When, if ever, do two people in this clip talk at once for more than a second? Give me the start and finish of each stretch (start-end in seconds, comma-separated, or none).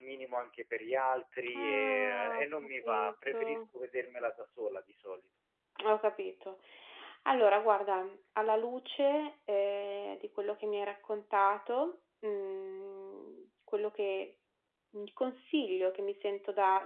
1.6-3.6